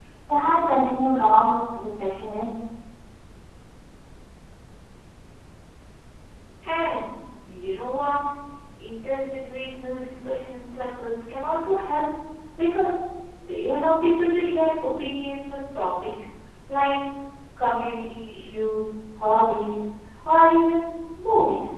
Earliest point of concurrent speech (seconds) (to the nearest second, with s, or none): none